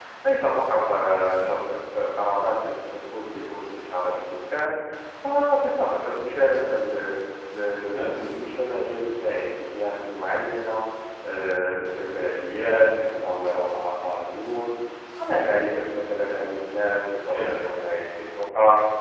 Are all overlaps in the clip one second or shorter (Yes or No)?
Yes